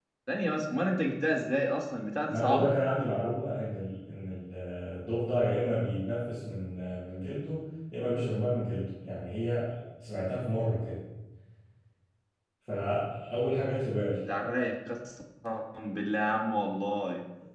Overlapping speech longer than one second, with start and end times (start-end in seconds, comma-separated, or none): none